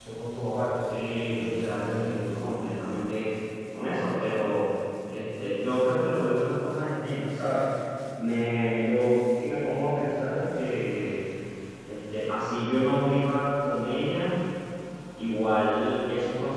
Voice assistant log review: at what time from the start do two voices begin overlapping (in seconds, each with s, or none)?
0.9 s